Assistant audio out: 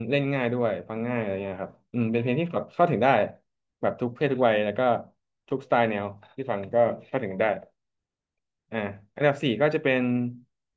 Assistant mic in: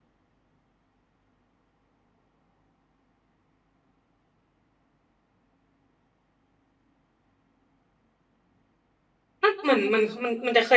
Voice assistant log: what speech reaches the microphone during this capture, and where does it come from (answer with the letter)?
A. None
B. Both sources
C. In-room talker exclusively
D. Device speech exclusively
C